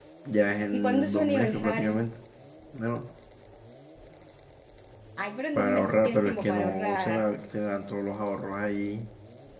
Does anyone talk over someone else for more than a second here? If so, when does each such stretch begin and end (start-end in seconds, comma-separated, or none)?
0.7-2.0, 5.5-7.3